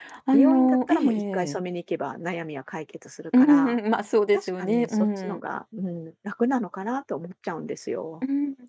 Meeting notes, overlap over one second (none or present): present